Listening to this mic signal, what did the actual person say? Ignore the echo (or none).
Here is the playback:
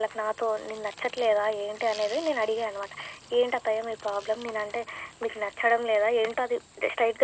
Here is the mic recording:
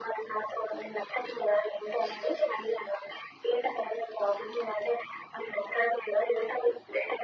none